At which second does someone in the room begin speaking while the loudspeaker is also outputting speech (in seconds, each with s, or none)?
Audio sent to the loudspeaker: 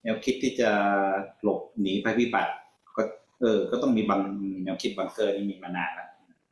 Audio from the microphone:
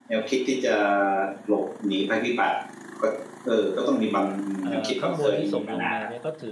4.6 s